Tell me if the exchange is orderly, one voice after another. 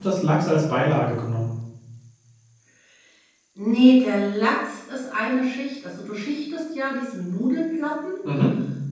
Yes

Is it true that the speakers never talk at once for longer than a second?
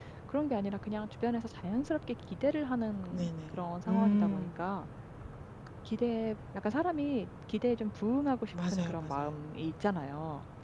No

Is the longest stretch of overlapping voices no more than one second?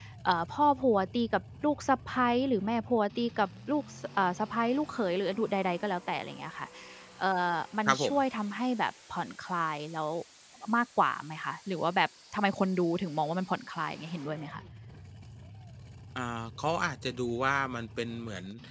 Yes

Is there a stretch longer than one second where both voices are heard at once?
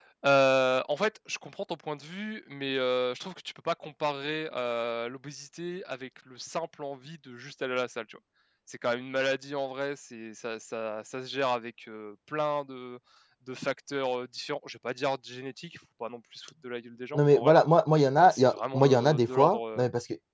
Yes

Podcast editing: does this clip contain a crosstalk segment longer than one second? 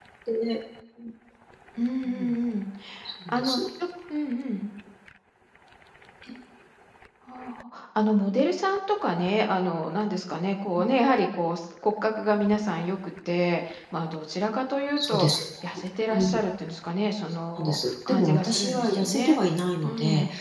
Yes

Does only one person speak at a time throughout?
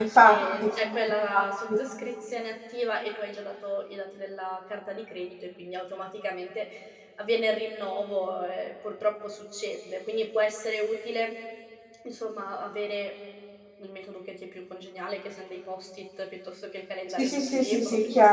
No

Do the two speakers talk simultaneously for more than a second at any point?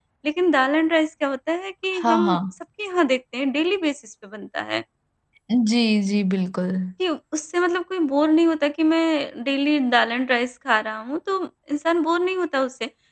No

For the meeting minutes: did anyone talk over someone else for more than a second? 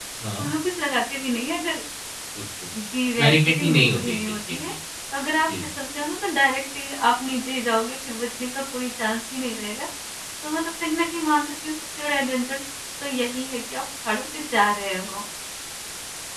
Yes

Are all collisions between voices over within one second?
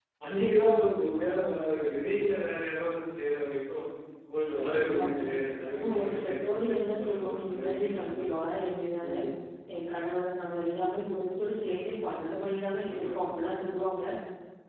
No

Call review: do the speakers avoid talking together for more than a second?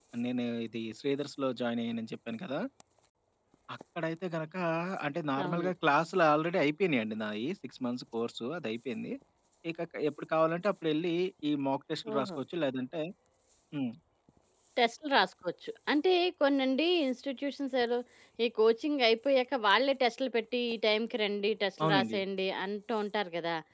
Yes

